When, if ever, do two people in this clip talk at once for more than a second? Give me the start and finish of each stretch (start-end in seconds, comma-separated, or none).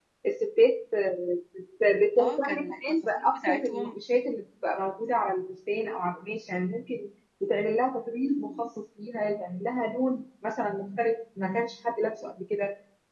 2.2-4.0